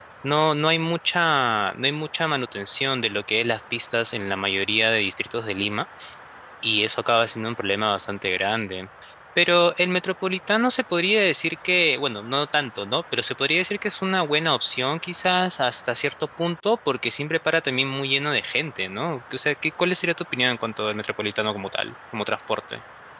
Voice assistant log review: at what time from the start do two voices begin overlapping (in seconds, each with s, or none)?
none